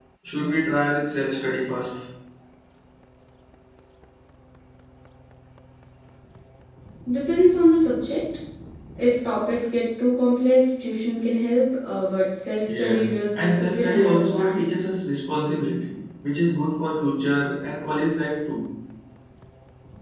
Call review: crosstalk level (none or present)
present